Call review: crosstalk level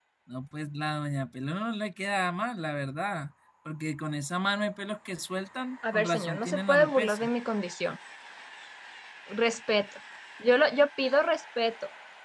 present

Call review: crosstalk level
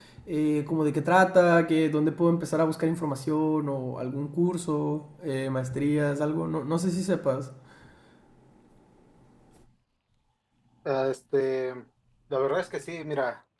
none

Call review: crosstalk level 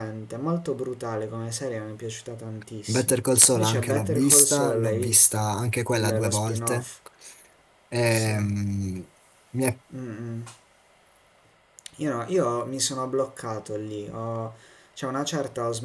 present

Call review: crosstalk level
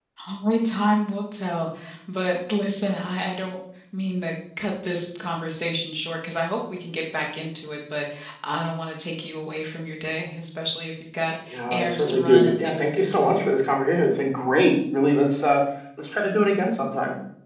present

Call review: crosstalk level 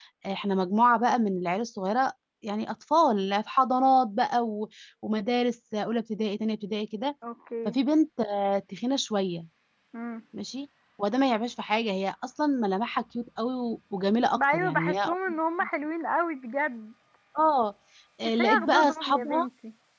present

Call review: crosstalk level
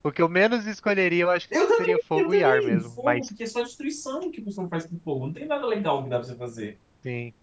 present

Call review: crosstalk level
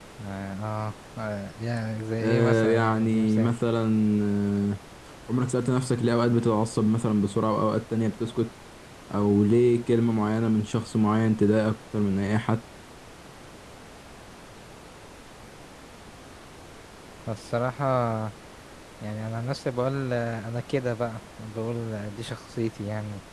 present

